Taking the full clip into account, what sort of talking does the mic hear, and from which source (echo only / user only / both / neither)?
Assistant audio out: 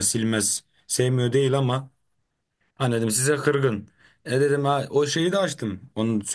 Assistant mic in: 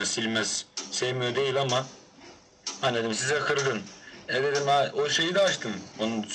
echo only